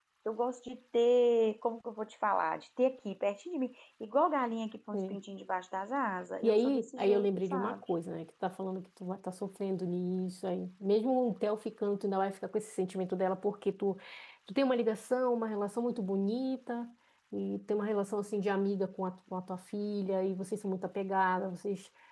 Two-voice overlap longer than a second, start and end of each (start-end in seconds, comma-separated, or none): 6.4-7.8